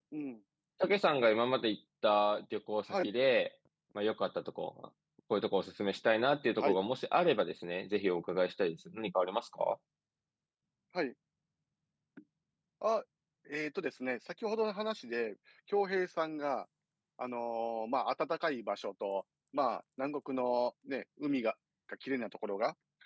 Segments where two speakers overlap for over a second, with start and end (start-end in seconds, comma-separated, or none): none